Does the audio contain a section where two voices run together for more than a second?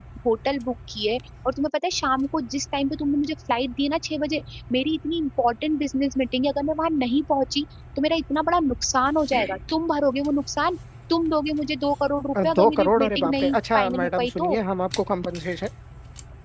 Yes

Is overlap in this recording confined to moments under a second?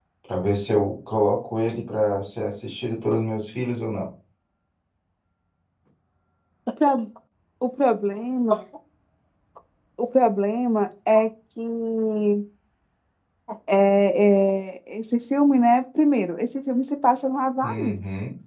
Yes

